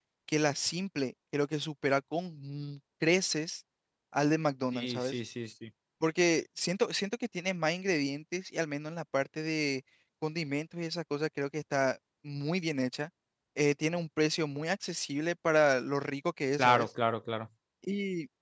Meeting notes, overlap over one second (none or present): none